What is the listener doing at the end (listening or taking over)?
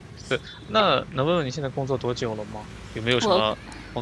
listening